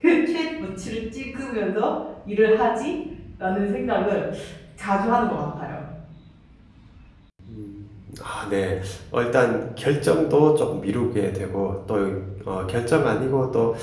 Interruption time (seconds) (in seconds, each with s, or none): none